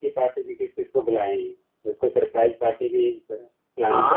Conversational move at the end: taking over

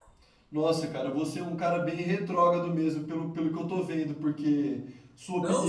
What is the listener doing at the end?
taking over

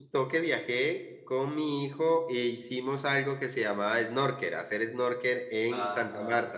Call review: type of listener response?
taking over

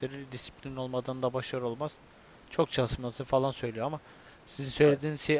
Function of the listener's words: listening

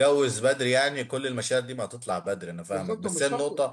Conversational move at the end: taking over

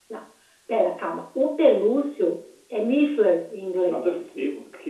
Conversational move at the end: taking over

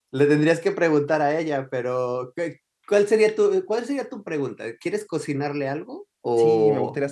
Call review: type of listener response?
taking over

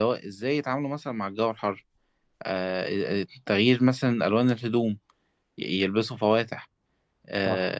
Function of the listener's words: listening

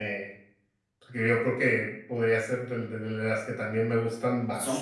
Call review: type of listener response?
listening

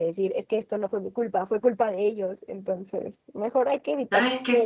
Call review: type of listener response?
taking over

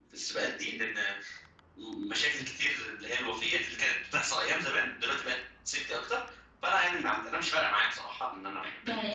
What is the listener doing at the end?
taking over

